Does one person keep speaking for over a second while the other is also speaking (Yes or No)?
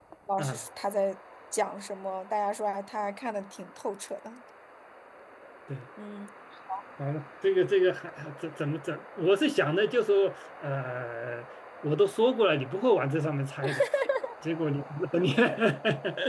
No